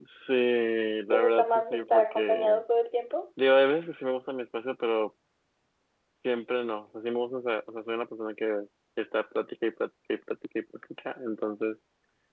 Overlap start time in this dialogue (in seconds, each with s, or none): 1.1 s